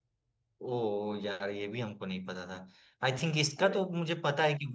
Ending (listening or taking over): listening